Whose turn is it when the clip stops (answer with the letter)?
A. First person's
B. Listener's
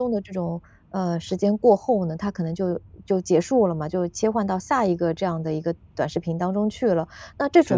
A